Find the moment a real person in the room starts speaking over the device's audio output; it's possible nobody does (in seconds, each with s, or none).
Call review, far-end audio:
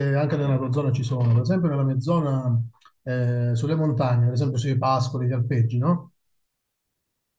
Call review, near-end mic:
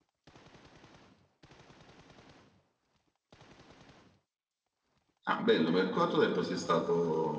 5.3 s